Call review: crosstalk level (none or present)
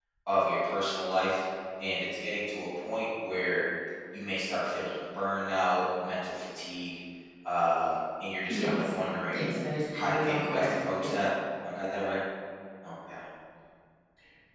present